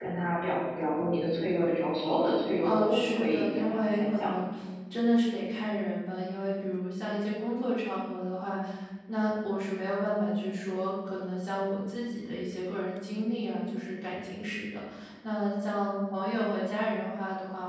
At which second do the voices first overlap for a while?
2.6 s

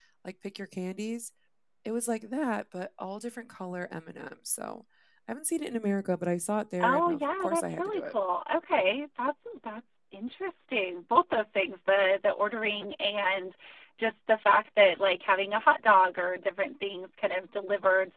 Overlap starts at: 6.8 s

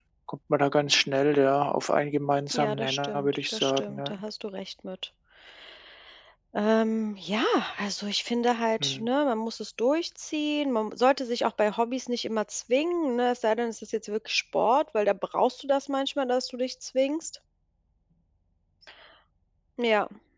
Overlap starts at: 2.5 s

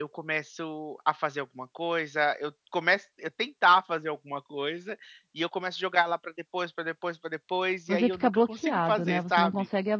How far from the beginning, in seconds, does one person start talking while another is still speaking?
7.9 s

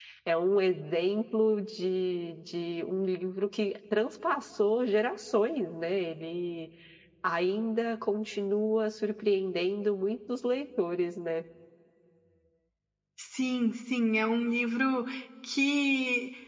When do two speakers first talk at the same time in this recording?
none

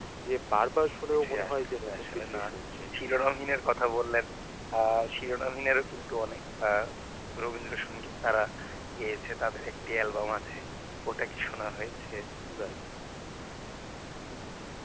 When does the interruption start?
1.1 s

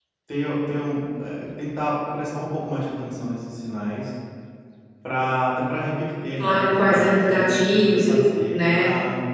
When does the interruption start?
6.4 s

